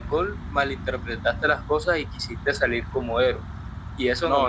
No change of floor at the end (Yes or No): No